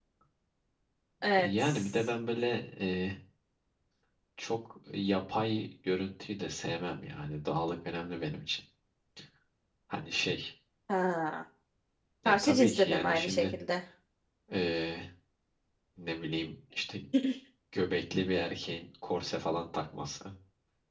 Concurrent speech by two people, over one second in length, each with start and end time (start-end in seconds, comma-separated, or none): 12.2-13.4